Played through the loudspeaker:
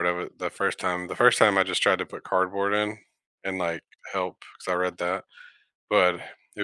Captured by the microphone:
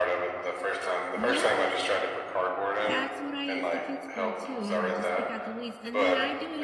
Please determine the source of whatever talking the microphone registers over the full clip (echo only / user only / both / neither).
both